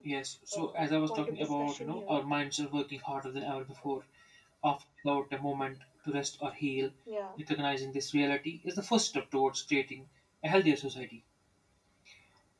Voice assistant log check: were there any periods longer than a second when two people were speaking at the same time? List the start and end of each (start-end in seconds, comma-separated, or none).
0.5-2.2